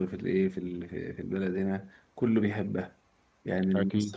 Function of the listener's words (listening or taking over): listening